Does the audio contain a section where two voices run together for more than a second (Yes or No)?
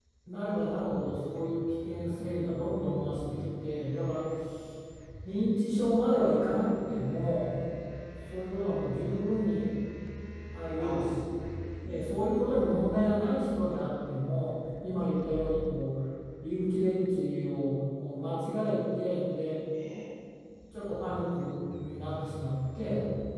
Yes